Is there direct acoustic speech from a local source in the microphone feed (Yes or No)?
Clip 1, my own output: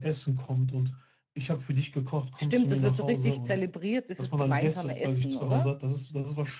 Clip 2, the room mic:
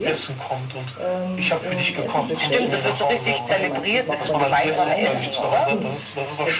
Yes